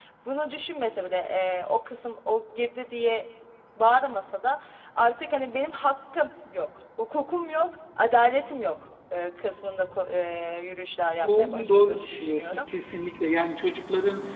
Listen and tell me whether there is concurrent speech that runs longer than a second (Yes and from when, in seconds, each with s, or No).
Yes, from 11.3 s